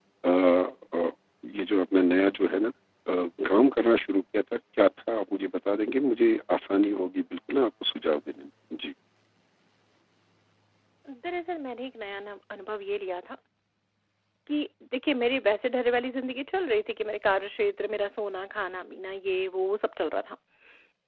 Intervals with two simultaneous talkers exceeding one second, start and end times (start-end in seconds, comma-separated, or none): none